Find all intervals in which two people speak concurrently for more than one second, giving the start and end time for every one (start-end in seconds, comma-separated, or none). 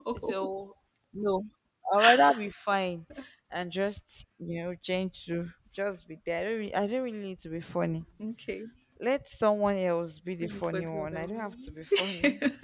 10.4-11.7